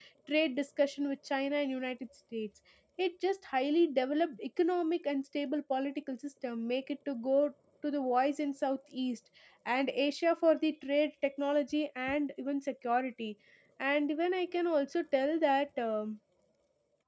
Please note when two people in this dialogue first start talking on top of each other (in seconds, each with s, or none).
none